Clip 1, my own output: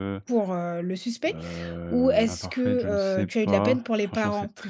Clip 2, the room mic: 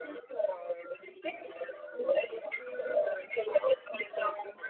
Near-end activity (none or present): none